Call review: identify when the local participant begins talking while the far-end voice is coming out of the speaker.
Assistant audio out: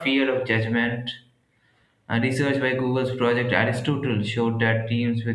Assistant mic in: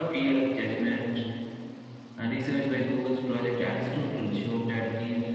none

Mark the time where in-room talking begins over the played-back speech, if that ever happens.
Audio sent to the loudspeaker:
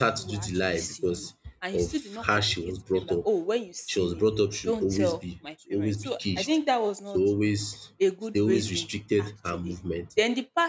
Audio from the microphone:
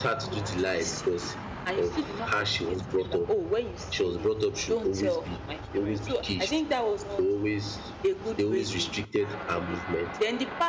none

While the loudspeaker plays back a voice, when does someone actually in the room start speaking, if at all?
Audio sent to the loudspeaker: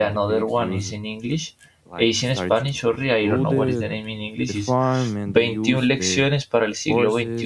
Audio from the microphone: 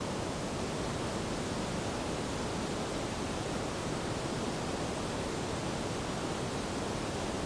none

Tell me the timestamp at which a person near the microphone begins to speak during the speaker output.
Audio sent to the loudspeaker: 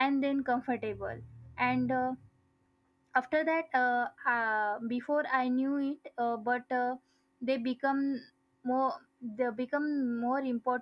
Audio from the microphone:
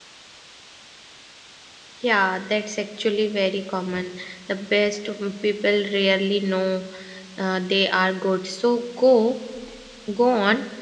2.0 s

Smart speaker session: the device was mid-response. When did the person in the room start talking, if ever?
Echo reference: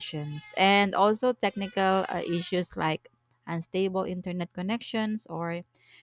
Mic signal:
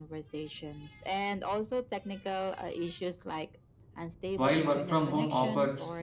4.3 s

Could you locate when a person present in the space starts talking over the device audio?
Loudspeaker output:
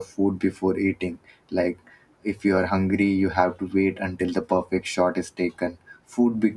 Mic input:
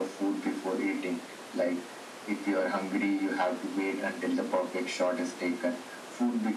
none

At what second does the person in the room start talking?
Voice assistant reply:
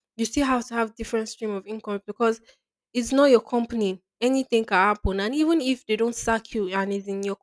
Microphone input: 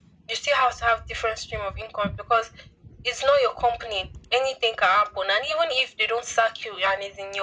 none

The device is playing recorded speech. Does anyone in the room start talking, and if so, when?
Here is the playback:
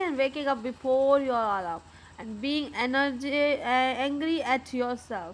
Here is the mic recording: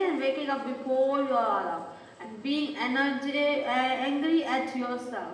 none

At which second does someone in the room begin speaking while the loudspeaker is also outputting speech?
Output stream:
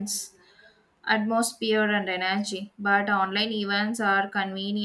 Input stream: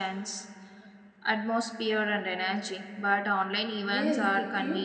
3.8 s

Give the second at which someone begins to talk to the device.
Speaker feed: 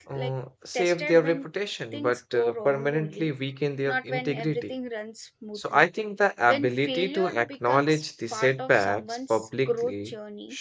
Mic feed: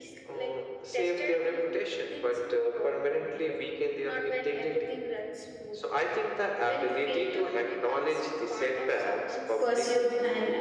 9.6 s

